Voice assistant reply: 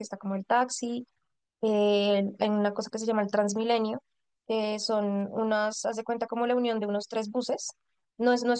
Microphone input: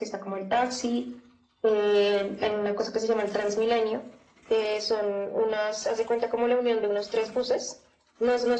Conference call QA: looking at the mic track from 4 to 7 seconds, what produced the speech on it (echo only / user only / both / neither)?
echo only